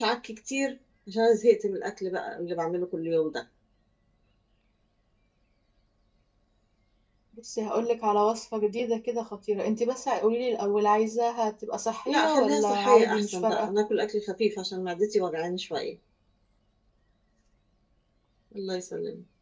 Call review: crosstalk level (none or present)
present